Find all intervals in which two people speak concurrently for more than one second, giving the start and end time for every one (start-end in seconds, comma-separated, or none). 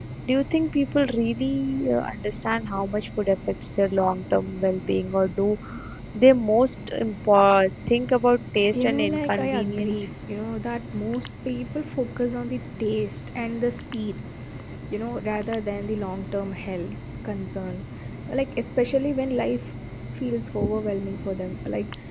8.7-10.1